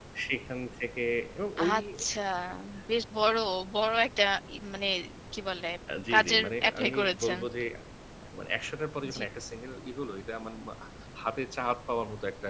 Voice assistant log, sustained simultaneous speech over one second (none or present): present